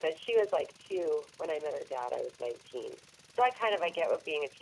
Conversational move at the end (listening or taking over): listening